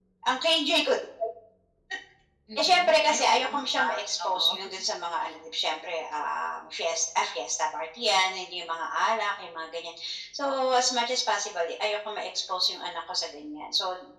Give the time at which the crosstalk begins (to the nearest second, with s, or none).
3 s